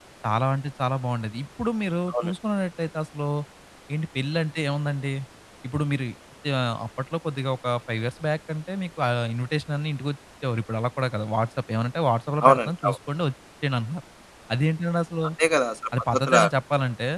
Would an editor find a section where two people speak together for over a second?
No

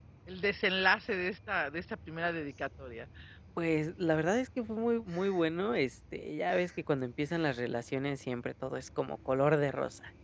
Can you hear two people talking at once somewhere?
No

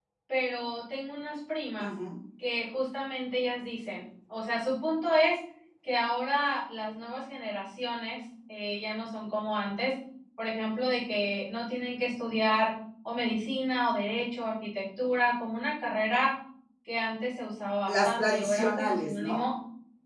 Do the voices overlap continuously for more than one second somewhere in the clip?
Yes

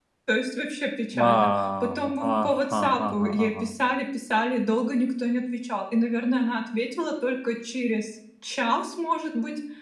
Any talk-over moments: Yes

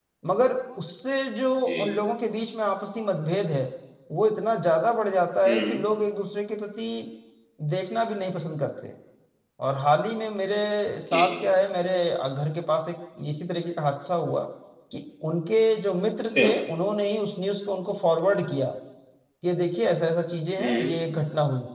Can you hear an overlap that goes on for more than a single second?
No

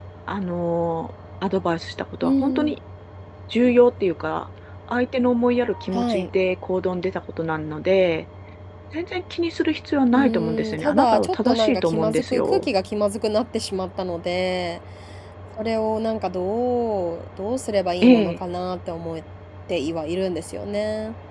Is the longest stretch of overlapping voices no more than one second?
No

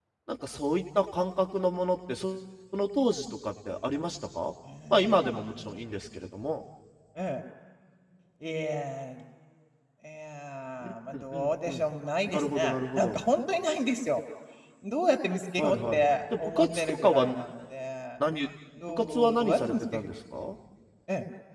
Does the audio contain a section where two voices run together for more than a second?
Yes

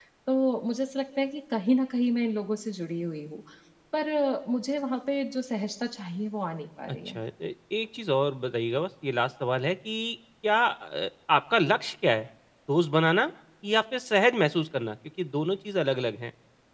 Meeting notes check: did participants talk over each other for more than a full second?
No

